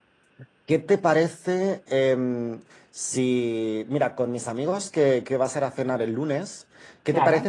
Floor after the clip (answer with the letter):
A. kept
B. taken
A